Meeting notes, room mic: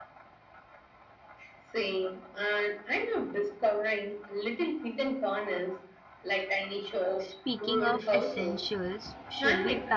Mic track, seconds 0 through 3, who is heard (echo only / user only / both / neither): echo only